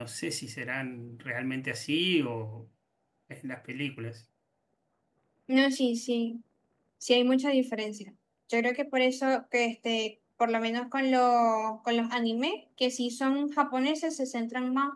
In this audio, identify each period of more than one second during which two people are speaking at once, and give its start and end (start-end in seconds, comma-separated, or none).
none